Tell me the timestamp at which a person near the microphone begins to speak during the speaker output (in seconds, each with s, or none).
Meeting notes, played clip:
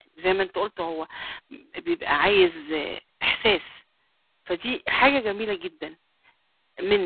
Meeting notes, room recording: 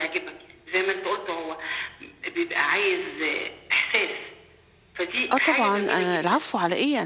5.3 s